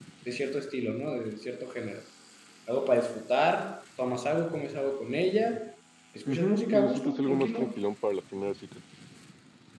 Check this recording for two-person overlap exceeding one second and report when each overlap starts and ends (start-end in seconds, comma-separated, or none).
6.3-7.6